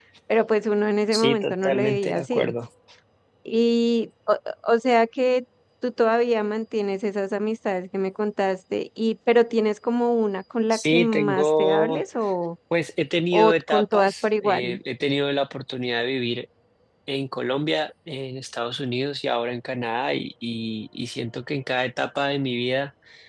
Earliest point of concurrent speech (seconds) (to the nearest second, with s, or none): 1 s